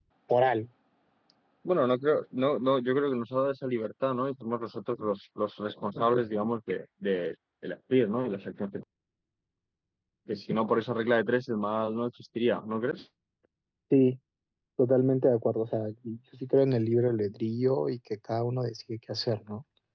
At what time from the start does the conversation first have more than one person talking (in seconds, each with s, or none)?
none